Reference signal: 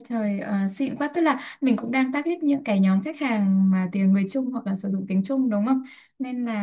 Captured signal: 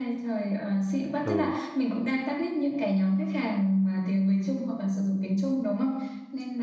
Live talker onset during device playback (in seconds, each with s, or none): 1.2 s